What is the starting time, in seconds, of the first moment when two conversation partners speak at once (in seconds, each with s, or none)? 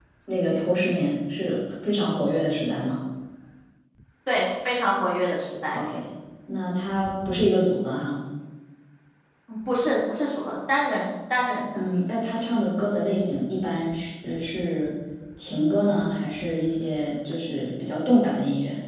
none